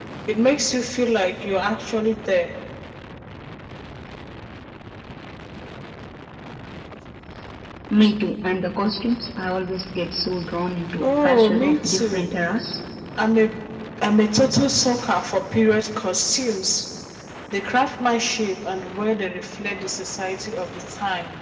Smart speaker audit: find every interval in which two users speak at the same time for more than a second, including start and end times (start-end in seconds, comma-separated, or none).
11.0-12.3